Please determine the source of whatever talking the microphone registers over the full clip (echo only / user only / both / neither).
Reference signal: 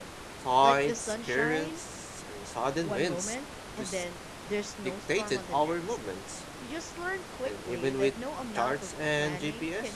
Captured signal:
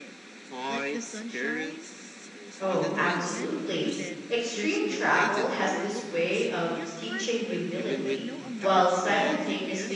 both